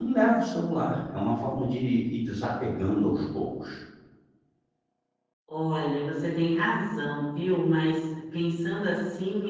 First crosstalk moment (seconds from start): none

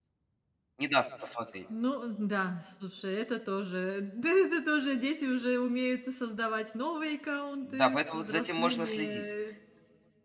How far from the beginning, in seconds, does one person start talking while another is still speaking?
7.7 s

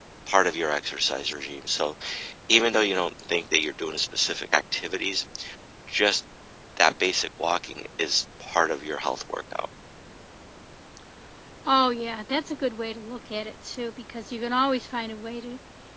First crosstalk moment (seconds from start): none

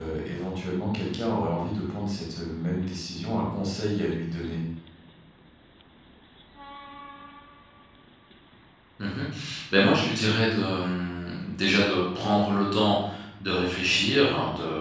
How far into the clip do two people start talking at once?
none

